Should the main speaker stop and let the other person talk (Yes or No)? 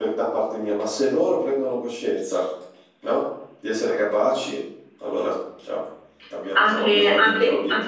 Yes